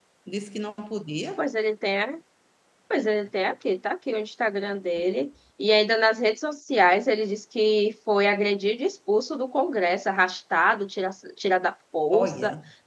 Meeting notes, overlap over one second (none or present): none